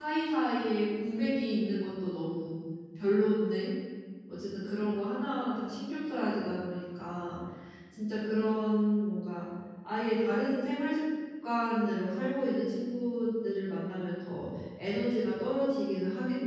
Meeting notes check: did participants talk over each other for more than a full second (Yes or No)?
No